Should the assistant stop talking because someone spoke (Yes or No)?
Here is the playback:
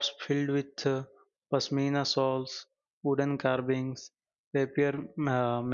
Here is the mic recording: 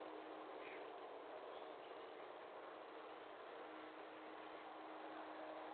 No